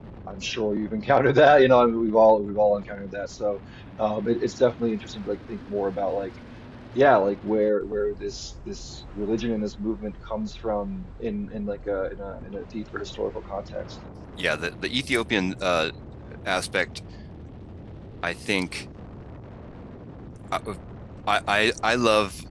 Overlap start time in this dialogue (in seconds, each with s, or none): none